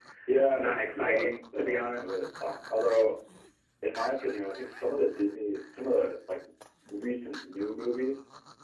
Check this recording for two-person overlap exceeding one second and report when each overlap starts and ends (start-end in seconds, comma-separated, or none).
0.6-2.1